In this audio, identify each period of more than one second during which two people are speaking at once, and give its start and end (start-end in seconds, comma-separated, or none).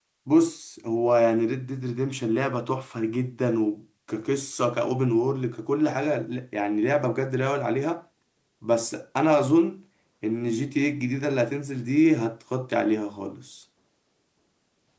none